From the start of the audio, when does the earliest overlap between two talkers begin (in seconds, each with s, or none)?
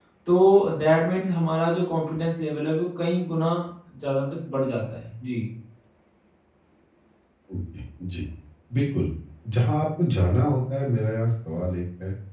none